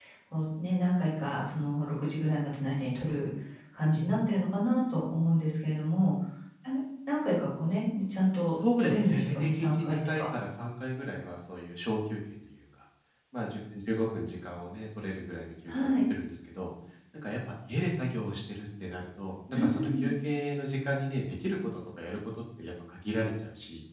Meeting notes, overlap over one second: present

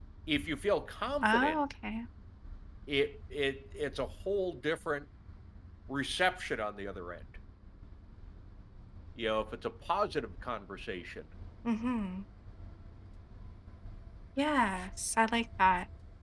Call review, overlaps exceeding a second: none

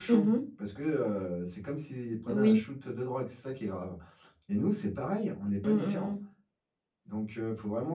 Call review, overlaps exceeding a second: none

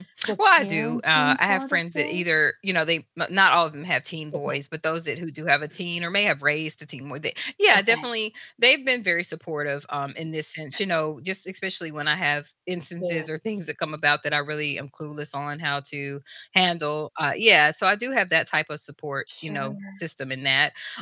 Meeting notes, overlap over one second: present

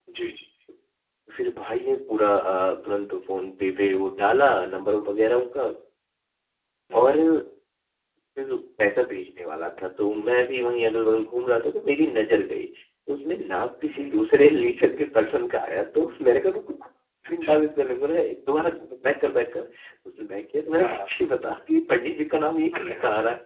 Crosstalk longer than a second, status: none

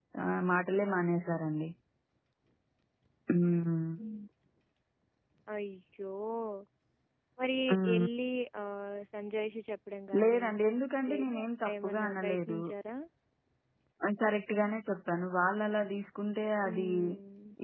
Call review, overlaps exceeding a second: present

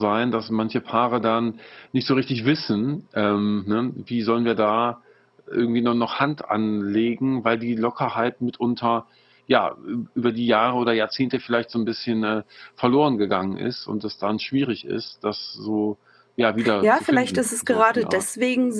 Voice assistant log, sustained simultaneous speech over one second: present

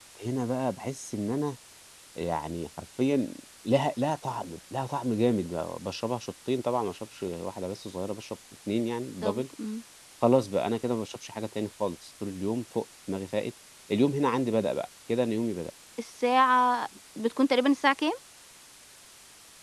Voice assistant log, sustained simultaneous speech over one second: none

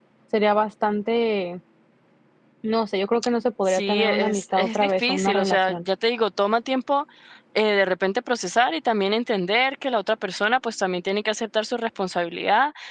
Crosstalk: present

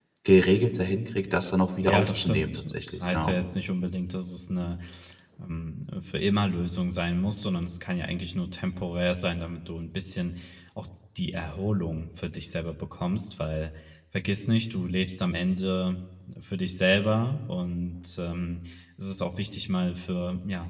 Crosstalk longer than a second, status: present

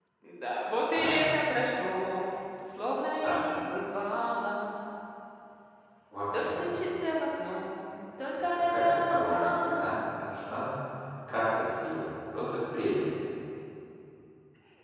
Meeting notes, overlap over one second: present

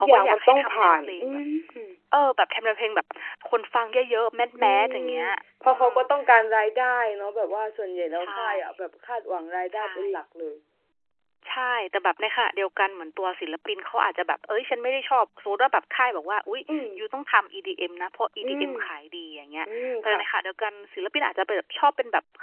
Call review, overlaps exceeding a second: present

